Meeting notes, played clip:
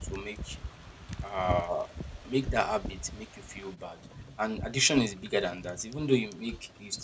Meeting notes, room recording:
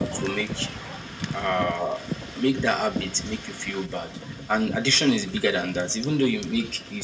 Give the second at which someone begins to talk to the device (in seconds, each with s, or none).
none